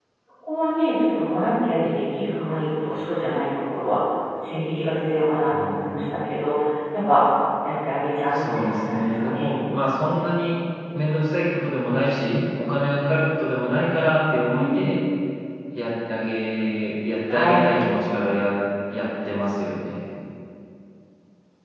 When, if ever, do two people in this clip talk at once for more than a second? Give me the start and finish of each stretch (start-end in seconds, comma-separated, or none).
8.3-9.5